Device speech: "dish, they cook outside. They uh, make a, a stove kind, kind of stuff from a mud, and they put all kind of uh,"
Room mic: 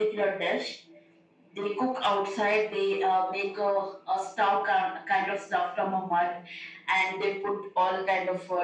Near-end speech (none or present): none